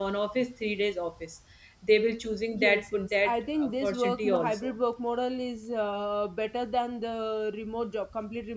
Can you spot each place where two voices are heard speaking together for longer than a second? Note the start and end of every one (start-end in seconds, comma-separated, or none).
2.5-4.7